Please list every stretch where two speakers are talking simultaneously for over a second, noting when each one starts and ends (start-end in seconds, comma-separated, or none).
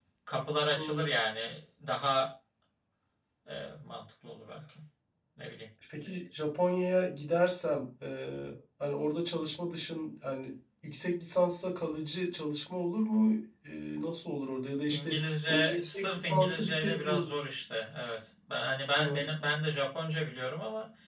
14.9-17.3